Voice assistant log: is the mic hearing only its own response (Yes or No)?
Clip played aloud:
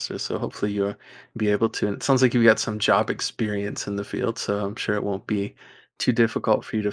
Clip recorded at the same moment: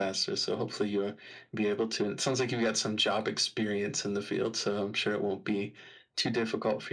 Yes